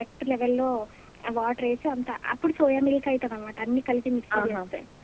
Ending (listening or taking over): listening